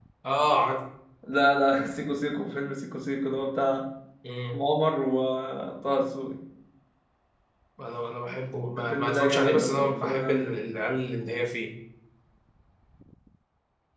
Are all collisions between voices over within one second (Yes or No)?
No